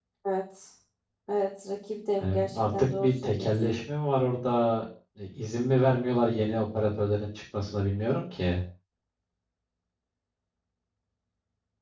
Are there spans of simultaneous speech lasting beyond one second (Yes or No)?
Yes